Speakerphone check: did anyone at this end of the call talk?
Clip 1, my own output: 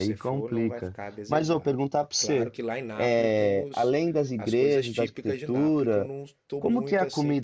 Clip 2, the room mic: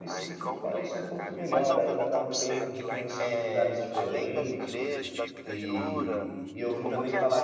Yes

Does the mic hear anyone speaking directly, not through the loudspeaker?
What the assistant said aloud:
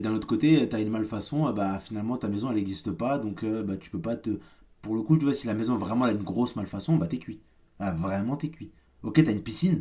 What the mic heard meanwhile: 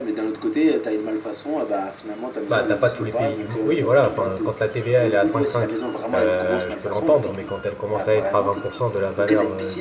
Yes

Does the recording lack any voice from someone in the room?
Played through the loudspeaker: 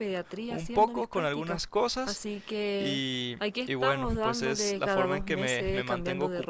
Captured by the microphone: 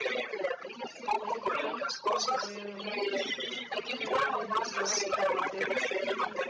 No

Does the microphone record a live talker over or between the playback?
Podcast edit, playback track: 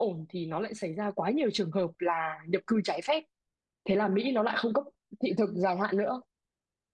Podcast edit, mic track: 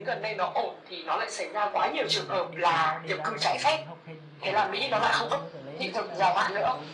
Yes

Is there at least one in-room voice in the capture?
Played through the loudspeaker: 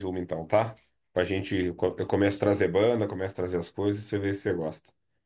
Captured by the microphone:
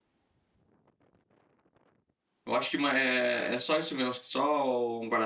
Yes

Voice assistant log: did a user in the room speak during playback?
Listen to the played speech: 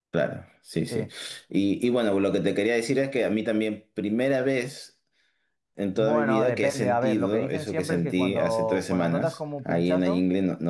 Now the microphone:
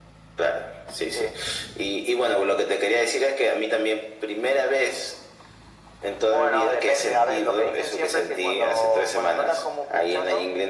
No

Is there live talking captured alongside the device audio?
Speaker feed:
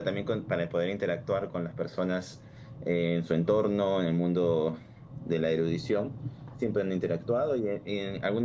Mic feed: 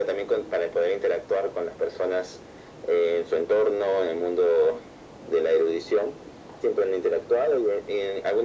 No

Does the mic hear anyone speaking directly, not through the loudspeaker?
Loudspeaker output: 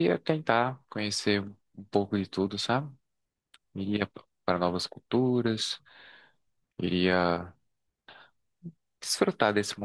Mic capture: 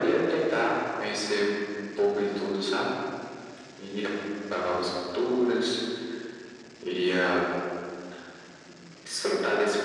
No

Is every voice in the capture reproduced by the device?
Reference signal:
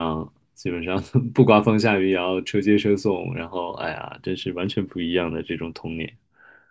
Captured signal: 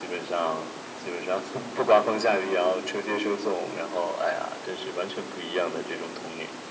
Yes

